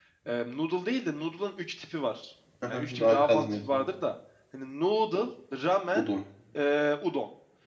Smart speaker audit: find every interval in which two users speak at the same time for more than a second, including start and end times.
2.7-3.9

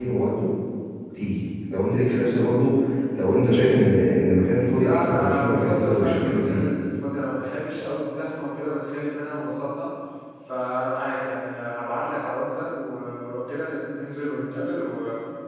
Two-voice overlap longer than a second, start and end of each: 4.8-6.6

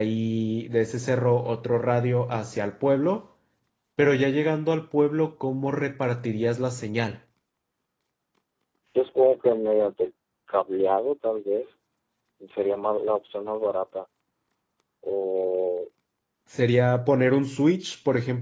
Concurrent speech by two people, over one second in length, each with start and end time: none

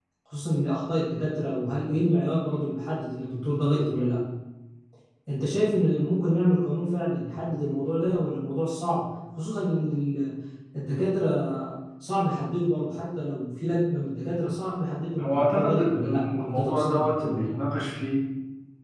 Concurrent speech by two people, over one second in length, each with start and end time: 15.2-17.6

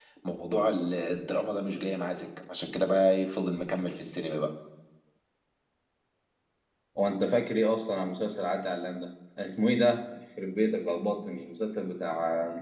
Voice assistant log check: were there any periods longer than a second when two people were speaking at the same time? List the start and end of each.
none

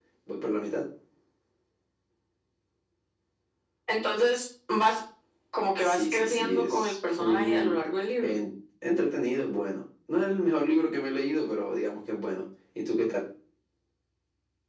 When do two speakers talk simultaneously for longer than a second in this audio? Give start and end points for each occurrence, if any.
5.8-7.8

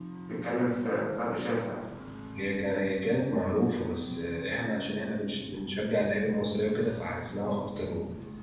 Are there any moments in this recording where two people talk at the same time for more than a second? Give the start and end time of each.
none

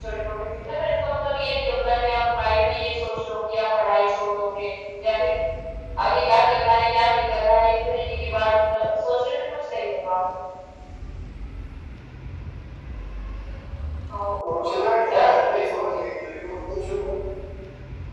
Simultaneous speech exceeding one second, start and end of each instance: 14.6-16.0

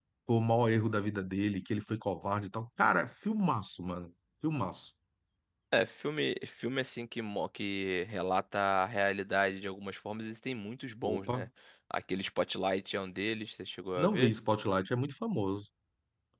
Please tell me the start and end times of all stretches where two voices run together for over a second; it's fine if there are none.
none

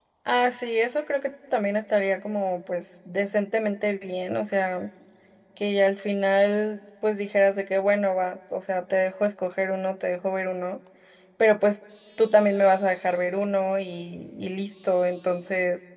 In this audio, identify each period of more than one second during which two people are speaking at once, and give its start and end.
none

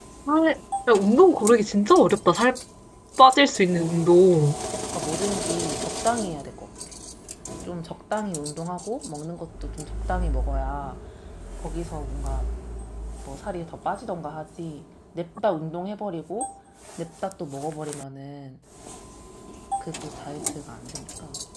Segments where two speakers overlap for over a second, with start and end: none

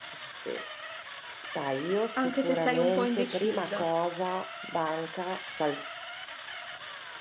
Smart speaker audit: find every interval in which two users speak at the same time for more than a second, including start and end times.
2.2-3.9

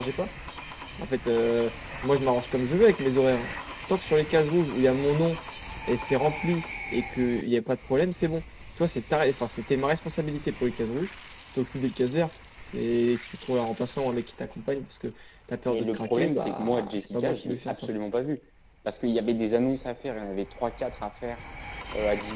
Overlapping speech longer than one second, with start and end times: 15.7-17.9

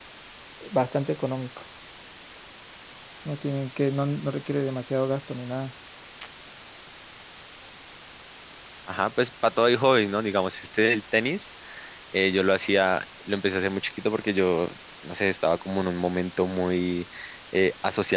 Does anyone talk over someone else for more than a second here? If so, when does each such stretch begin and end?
none

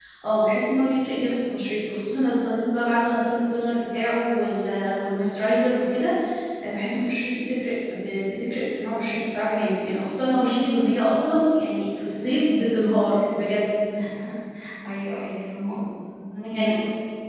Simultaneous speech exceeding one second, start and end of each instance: none

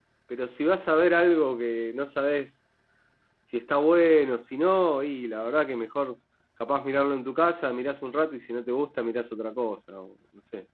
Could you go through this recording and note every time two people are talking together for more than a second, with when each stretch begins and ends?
none

